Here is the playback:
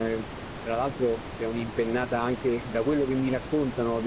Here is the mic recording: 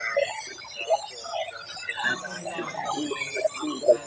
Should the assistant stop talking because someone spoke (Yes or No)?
Yes